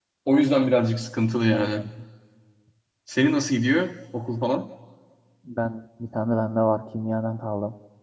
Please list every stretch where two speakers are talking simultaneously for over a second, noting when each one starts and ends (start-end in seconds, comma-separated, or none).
none